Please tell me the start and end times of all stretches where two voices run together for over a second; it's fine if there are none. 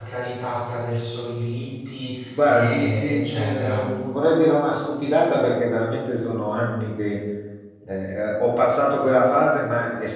2.3-4.0

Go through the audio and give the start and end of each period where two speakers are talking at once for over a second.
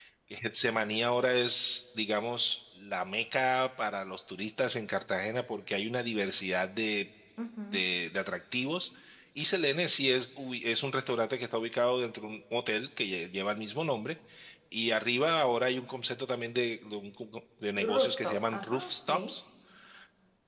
17.9-19.4

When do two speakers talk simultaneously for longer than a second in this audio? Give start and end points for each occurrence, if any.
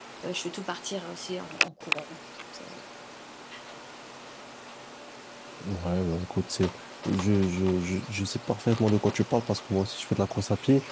none

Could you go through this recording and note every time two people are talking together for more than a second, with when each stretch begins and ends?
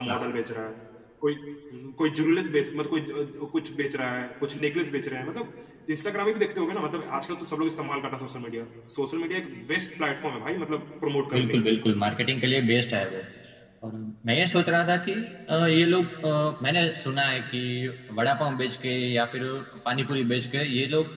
none

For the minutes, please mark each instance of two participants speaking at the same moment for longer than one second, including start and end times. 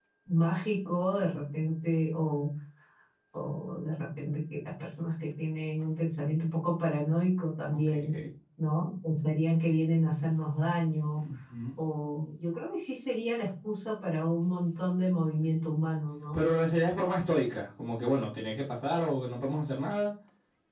none

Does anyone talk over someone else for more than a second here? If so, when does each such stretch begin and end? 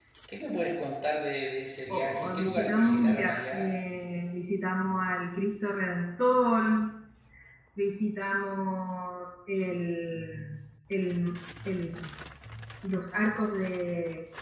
1.9-3.7

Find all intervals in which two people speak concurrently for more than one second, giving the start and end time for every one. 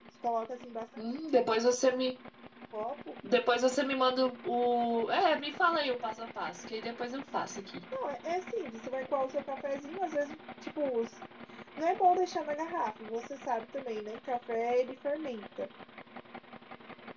none

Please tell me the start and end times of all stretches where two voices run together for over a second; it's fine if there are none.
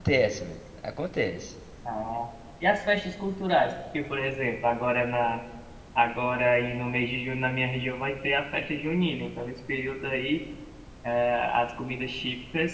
none

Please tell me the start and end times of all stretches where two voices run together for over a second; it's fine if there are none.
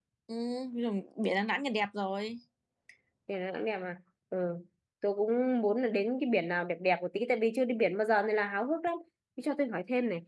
none

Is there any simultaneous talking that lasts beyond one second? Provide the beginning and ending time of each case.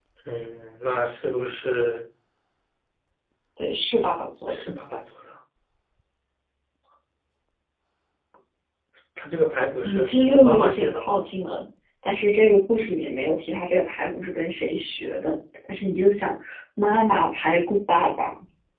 9.8-11.2

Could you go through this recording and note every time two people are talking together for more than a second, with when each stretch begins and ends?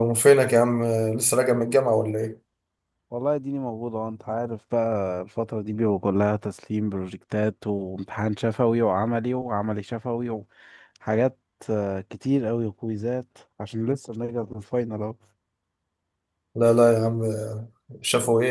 none

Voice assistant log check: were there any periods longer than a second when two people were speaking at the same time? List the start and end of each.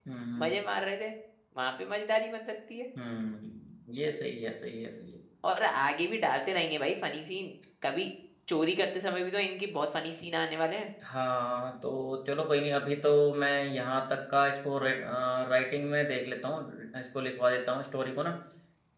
none

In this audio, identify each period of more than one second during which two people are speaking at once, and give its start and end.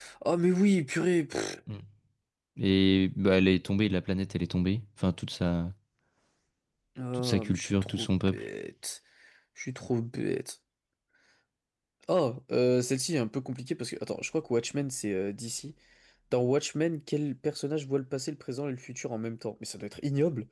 7.2-8.5

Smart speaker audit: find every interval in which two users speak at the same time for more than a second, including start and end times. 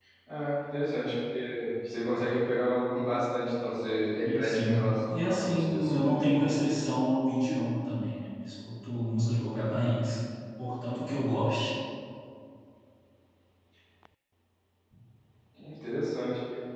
4.2-6.0

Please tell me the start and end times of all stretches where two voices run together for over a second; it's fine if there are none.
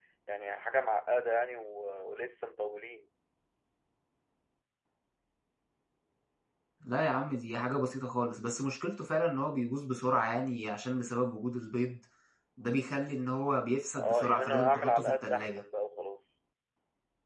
13.9-15.6

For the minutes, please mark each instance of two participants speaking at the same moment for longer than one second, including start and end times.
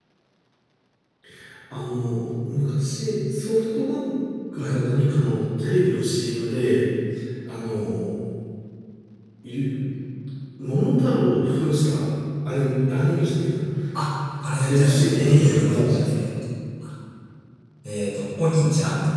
14.6-16.2

